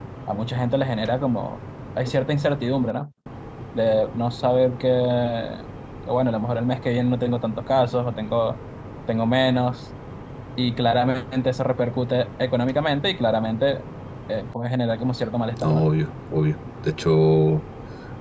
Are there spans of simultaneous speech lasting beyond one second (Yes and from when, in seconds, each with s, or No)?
No